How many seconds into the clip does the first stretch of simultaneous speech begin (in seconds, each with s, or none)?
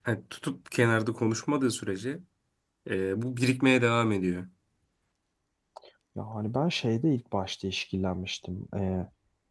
none